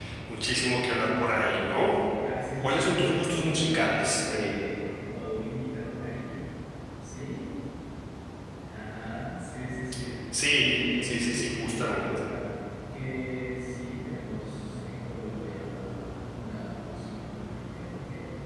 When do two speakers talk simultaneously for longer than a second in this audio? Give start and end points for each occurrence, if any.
2.6-4.5, 10.5-12.1

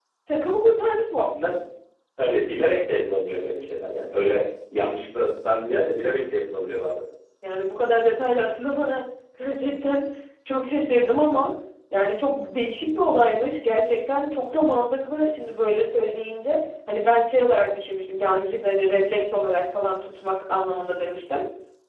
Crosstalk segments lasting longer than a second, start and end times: none

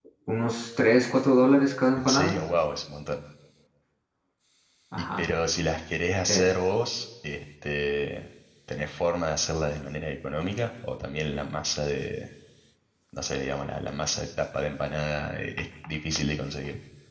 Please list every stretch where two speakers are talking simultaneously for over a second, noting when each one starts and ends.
none

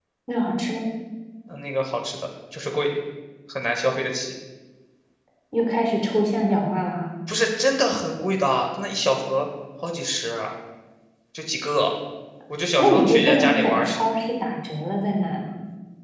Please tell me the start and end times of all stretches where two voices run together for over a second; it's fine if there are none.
12.8-14.0

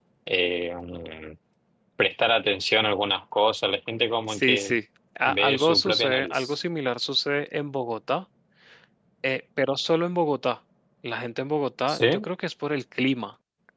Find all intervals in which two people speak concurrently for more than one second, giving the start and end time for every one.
5.3-6.5

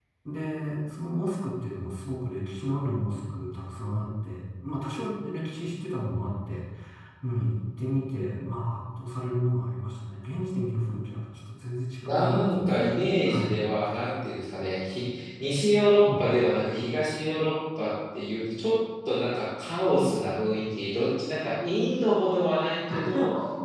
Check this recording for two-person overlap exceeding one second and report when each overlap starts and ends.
12.1-13.6

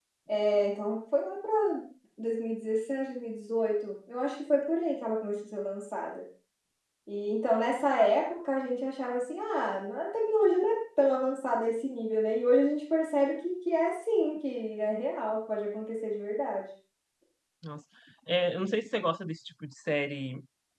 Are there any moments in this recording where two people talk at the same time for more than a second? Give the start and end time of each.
none

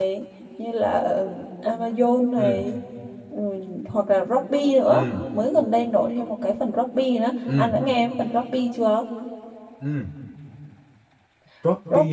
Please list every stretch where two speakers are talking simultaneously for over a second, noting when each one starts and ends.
none

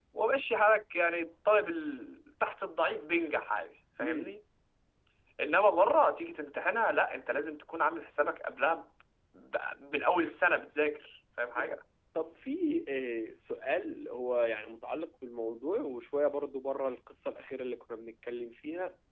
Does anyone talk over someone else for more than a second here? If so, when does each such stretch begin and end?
none

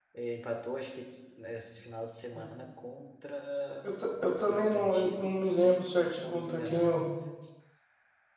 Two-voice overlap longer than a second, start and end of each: 4.4-7.0

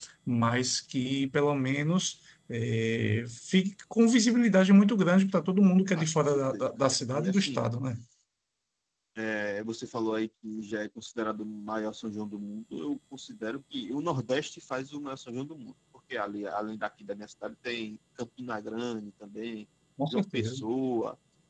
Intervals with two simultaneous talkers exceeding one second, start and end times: 6.0-7.7

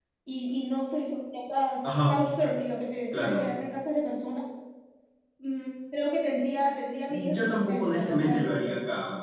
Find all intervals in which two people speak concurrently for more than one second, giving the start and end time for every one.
7.3-8.6

